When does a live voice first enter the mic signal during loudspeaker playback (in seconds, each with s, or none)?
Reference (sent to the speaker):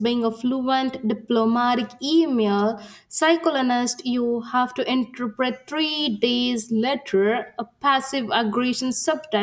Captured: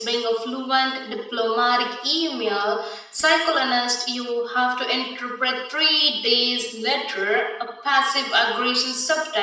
none